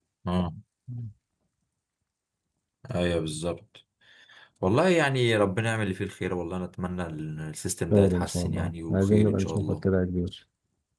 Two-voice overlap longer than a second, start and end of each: 7.9-9.8

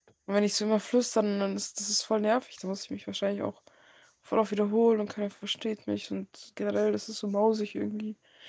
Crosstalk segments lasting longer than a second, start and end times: none

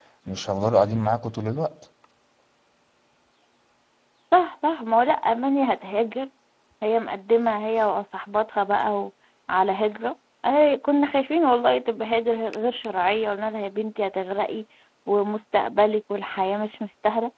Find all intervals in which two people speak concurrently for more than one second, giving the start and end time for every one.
none

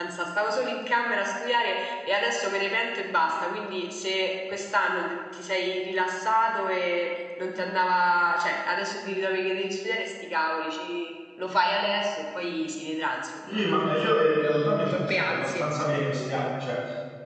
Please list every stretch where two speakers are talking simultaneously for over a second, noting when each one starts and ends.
13.5-15.7

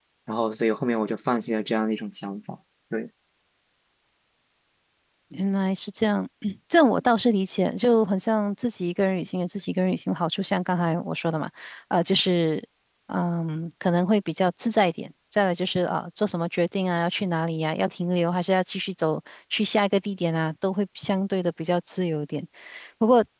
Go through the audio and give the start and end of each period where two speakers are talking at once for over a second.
none

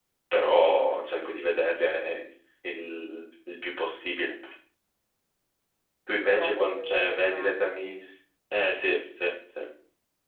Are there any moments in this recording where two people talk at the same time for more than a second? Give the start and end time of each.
6.2-7.5

